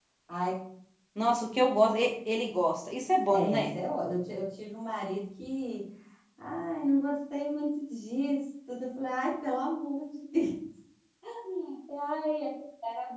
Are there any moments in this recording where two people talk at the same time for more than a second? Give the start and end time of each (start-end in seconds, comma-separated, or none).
none